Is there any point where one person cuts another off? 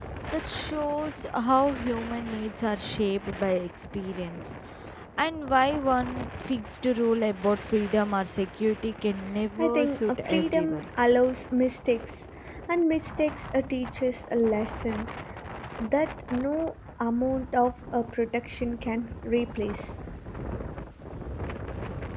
Yes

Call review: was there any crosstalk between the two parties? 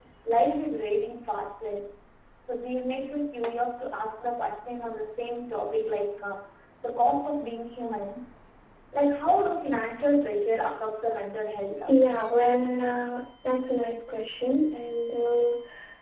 No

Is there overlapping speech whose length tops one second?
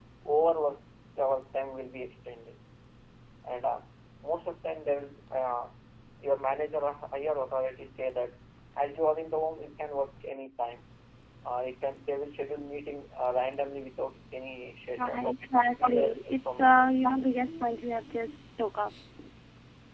Yes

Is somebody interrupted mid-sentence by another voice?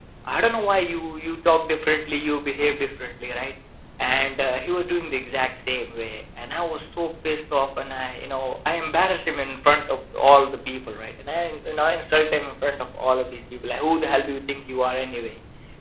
No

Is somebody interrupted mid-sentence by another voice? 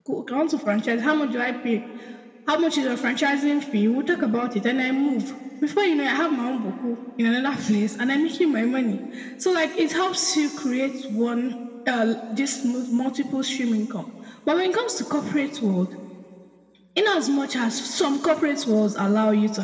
No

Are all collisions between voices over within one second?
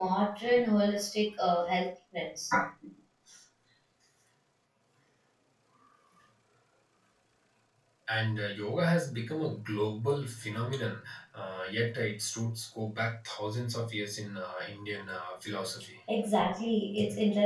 Yes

